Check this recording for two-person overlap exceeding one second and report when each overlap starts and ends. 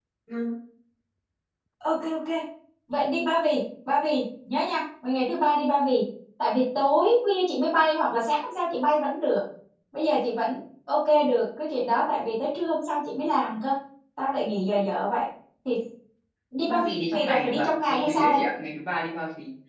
16.6-18.4

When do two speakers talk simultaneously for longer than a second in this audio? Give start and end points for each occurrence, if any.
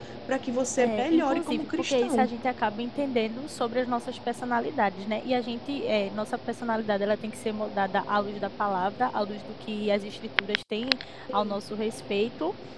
0.8-2.3

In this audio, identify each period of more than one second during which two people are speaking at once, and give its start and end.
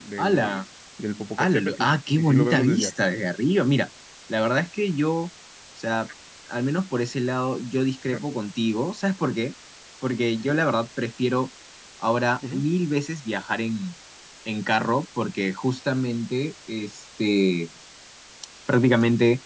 1.4-3.1

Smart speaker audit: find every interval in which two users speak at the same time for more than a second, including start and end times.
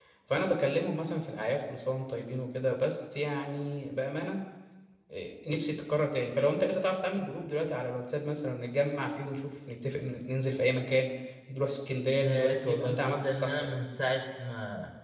12.2-13.7

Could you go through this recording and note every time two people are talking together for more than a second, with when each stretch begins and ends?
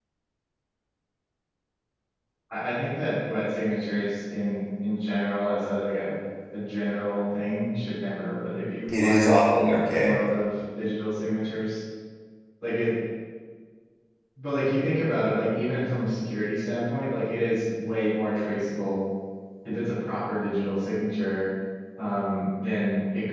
8.9-10.2

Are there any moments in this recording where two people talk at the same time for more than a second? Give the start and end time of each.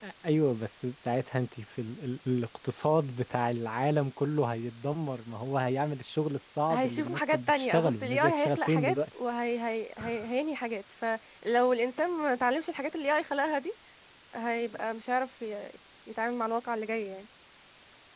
6.7-8.9

